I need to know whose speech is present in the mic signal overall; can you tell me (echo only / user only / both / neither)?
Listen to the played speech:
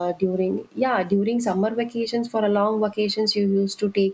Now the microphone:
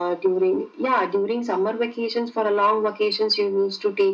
echo only